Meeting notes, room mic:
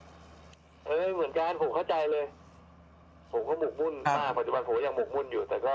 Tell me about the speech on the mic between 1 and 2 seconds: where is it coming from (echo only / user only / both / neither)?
echo only